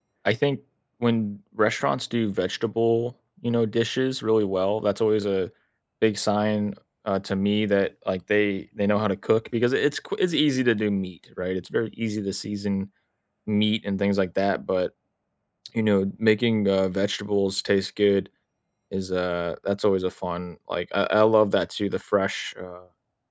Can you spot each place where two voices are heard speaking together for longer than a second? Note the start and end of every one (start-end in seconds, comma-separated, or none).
none